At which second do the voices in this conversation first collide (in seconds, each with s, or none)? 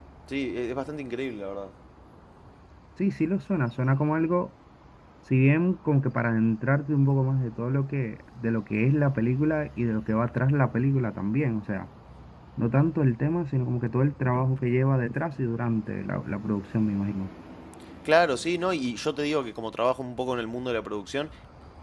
none